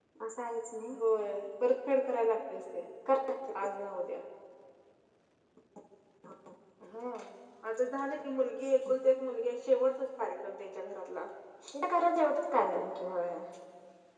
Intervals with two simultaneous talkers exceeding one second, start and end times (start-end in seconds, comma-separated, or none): none